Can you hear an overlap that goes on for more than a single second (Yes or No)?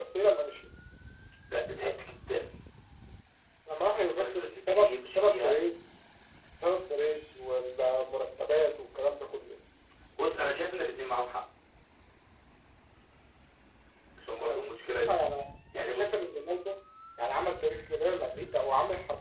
Yes